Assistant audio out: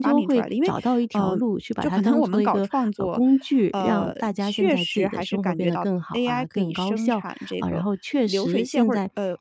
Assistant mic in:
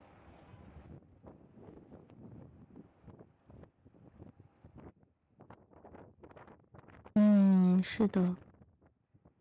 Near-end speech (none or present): present